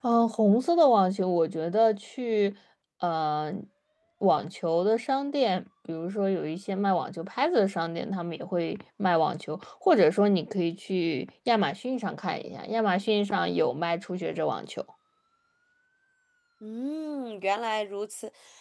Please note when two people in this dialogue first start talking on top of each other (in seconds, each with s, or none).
none